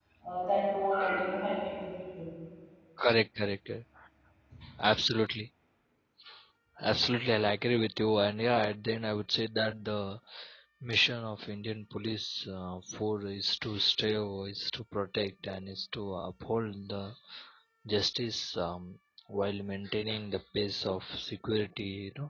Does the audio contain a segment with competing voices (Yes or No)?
No